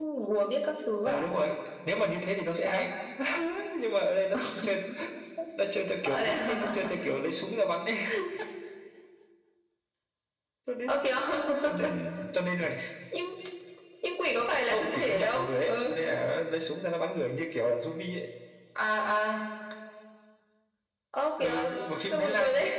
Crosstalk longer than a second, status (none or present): present